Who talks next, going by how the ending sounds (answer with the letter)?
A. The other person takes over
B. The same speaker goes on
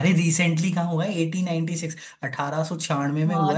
A